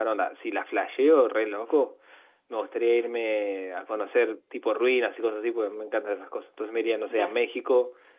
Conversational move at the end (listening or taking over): listening